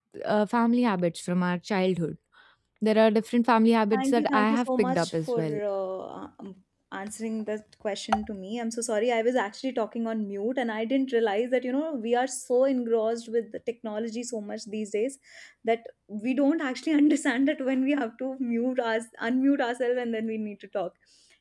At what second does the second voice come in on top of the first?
3.9 s

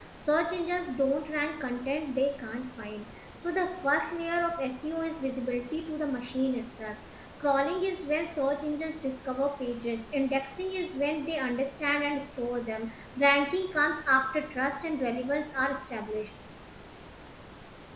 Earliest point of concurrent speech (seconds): none

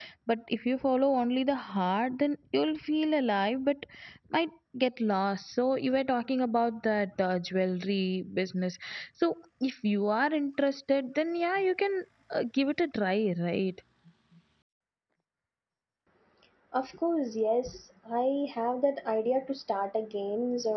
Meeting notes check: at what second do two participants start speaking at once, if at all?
none

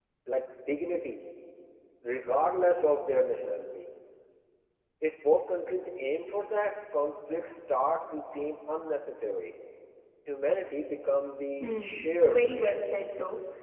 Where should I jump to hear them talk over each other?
11.6 s

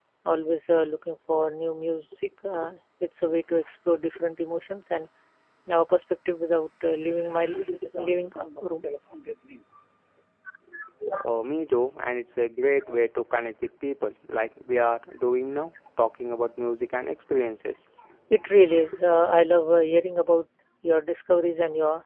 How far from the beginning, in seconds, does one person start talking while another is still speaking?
none

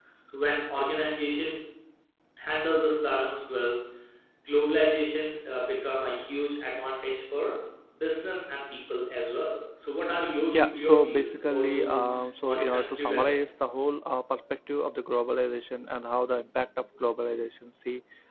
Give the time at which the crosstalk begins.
10.5 s

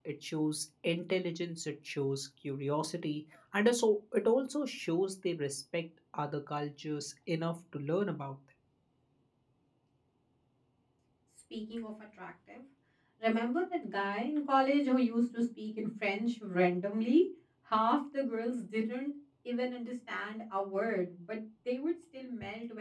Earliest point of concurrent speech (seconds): none

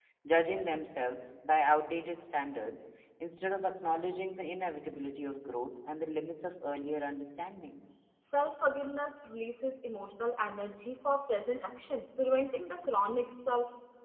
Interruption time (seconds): none

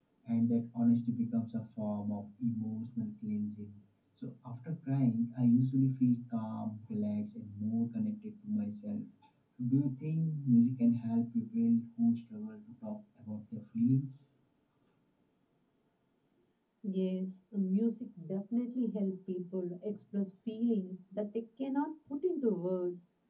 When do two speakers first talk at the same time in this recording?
none

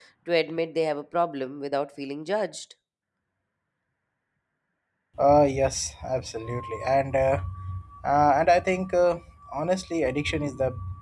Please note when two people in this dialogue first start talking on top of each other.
none

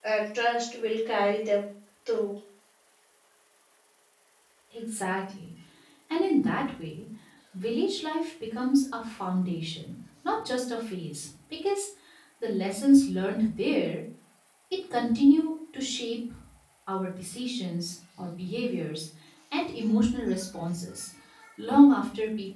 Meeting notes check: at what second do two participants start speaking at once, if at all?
none

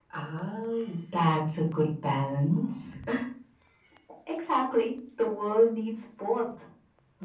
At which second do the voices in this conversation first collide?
none

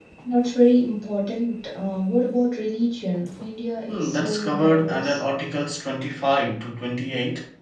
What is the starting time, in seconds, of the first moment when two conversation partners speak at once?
3.9 s

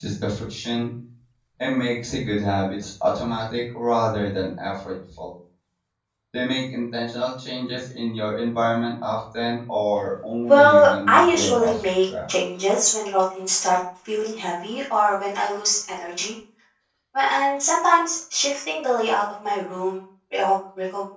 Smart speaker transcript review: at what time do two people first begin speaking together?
10.5 s

